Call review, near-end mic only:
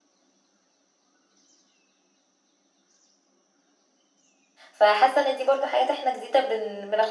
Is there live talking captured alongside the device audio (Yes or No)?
Yes